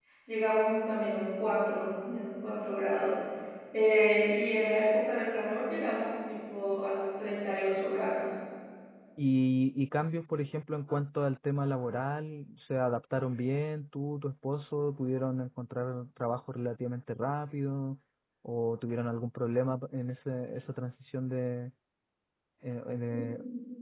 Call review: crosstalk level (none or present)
none